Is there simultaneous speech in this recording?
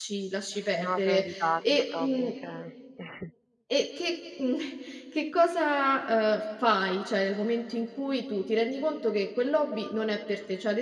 Yes, from 0.7 s

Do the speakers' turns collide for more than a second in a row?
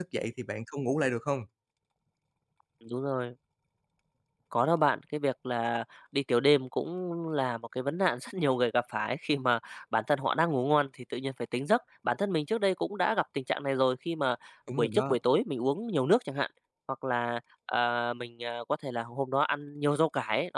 No

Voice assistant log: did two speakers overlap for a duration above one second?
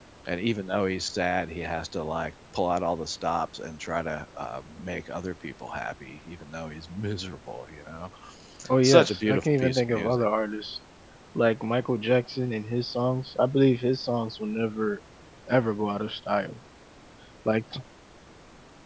Yes, from 8.8 s

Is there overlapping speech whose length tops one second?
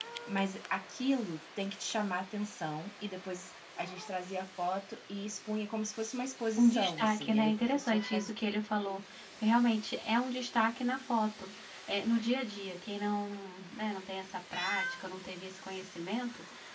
Yes, from 6.6 s

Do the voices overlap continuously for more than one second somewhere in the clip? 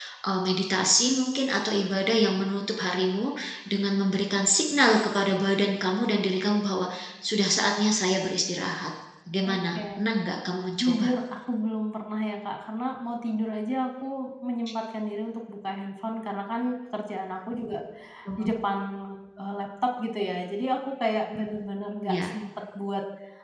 No

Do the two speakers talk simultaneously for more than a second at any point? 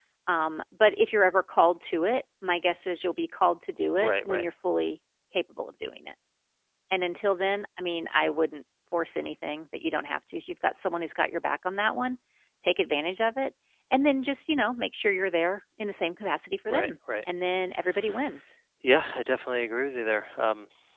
No

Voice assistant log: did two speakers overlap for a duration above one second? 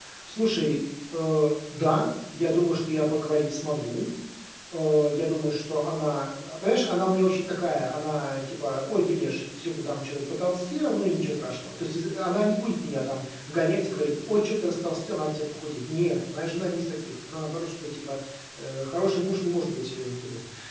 No

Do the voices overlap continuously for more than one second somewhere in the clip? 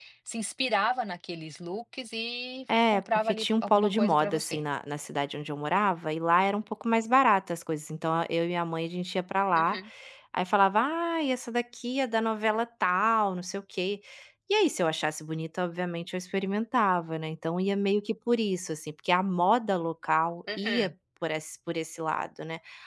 Yes, from 2.9 s

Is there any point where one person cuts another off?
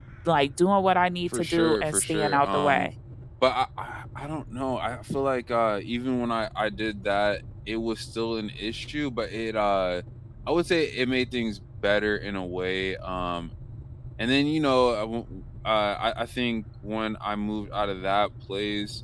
Yes, from 1.3 s

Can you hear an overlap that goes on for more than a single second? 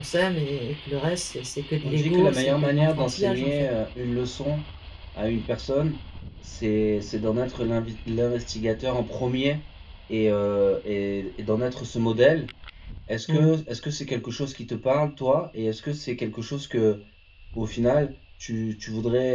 Yes, from 1.8 s

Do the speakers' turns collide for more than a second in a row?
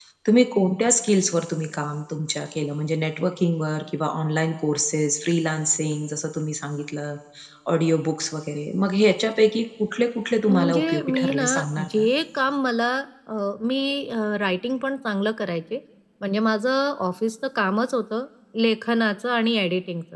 Yes, from 10.5 s

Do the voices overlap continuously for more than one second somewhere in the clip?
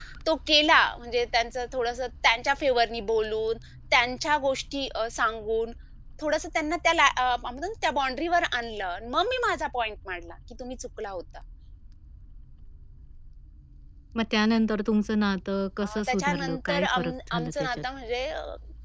Yes, from 15.8 s

